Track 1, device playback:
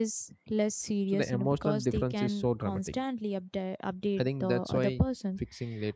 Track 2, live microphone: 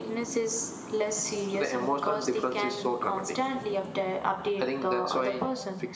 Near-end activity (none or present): none